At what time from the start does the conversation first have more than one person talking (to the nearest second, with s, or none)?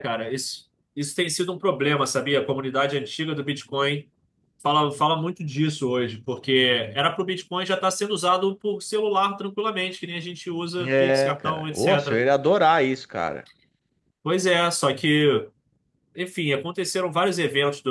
11 s